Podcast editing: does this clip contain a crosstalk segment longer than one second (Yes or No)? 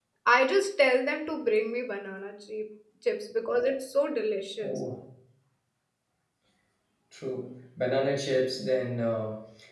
No